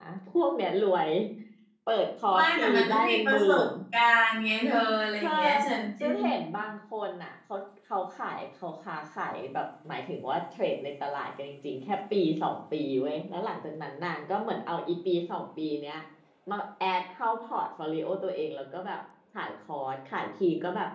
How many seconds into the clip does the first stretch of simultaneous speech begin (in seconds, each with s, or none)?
2.3 s